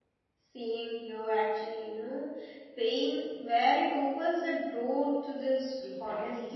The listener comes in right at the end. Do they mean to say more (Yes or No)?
Yes